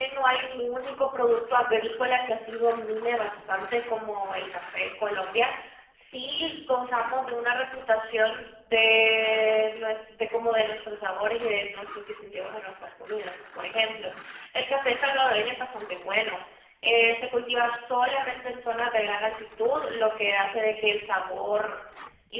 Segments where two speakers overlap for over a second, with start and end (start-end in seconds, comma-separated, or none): none